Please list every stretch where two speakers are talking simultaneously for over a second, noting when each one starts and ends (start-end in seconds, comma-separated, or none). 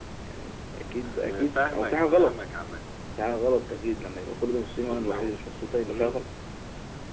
1.0-2.4